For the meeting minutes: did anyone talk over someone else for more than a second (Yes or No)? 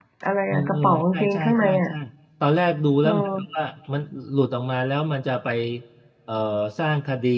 Yes